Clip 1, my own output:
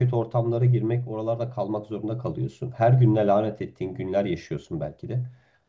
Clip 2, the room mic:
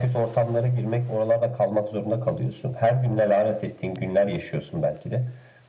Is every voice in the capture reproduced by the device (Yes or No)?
Yes